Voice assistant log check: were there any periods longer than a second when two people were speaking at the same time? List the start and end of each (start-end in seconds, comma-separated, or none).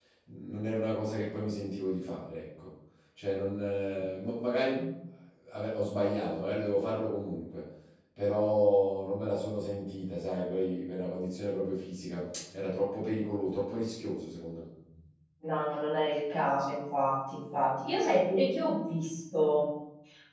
none